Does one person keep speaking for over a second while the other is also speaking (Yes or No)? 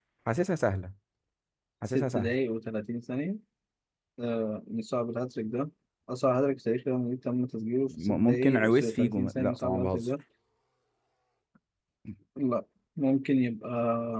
Yes